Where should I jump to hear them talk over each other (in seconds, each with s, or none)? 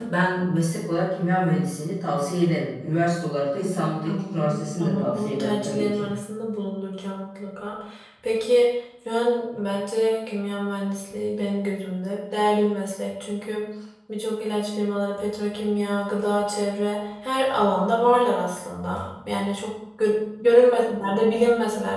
3.6 s